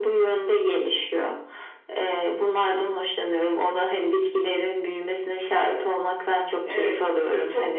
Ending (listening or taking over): taking over